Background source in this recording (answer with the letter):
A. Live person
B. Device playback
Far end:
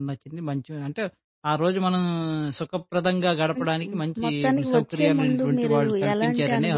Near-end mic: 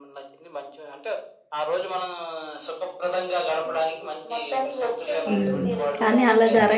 B